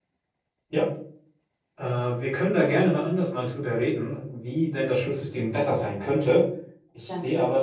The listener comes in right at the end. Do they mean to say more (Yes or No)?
No